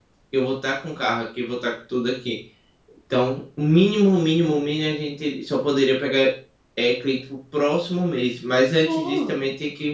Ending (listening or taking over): listening